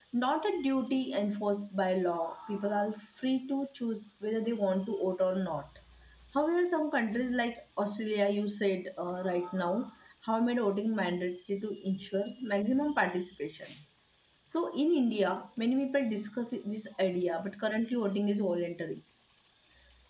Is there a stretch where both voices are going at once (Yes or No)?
No